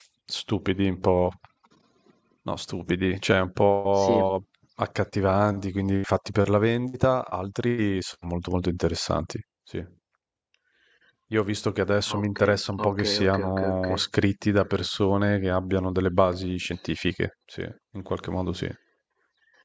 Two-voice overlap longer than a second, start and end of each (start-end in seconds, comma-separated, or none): 12.2-14.0